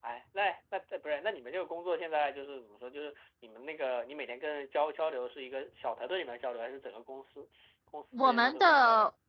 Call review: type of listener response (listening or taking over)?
taking over